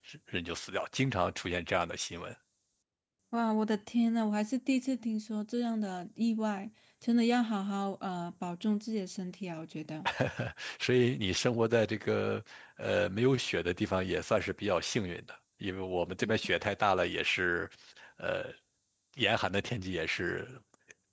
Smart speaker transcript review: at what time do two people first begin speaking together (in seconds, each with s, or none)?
none